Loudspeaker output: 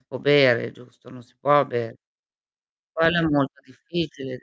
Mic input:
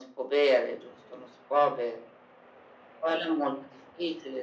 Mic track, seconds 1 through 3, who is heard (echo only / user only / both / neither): echo only